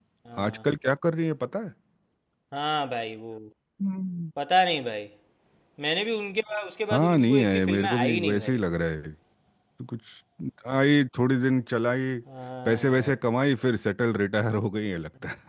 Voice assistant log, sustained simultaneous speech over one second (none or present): present